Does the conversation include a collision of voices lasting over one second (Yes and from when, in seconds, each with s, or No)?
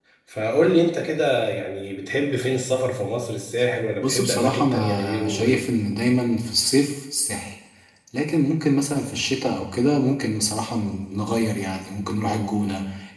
Yes, from 4.0 s